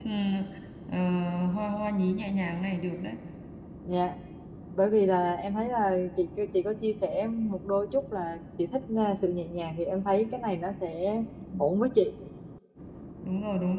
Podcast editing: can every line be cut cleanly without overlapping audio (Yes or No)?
Yes